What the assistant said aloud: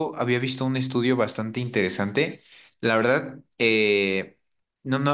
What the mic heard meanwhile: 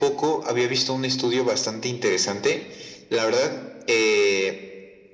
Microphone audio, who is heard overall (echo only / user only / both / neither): echo only